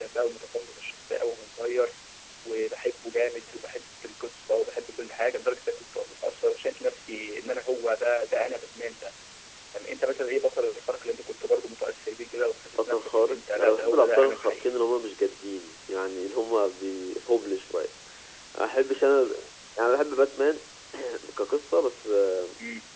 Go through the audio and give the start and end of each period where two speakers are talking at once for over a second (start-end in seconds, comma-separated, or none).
12.8-14.7